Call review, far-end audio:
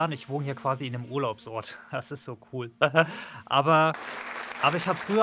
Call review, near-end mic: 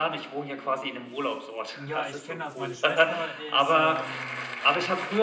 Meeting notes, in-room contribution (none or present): present